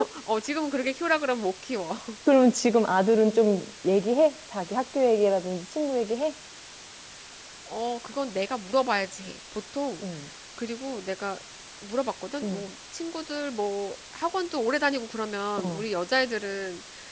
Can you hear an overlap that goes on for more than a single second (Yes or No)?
No